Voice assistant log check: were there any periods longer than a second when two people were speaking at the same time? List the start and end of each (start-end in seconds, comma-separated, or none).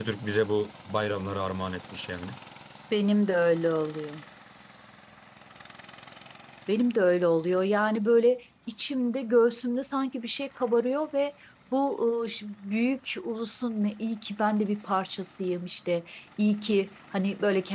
none